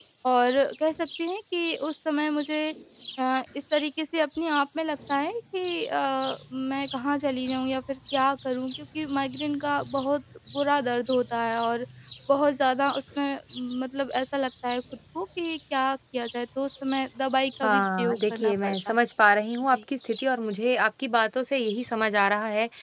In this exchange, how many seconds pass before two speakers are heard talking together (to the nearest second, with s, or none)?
18 s